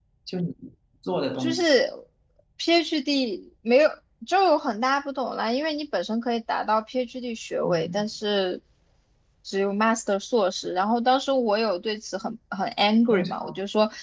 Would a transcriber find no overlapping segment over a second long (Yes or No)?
Yes